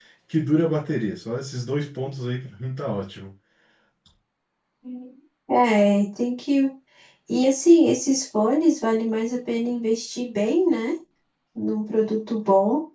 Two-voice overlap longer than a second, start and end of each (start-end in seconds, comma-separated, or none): none